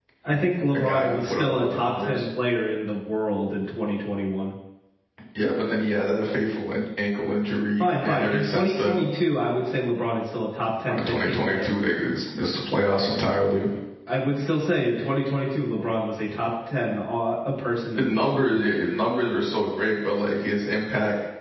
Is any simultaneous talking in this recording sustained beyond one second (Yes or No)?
Yes